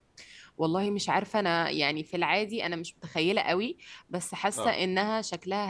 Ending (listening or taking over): listening